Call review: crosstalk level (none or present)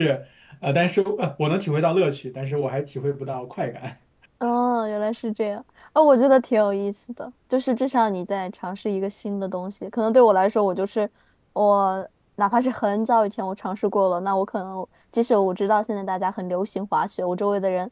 none